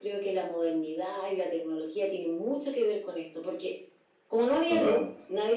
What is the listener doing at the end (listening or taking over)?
listening